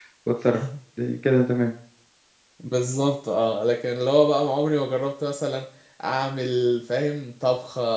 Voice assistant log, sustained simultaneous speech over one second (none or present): none